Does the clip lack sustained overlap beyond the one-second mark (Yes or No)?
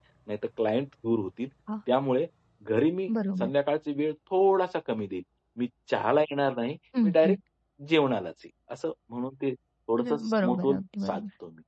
No